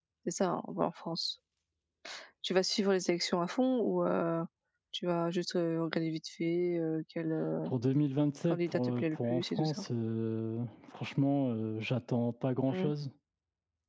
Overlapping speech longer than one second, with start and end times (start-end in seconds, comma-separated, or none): 8.5-9.7